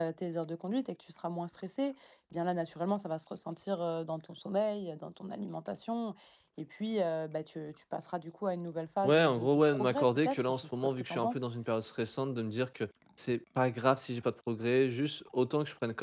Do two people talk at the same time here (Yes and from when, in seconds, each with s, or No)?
Yes, from 9.0 s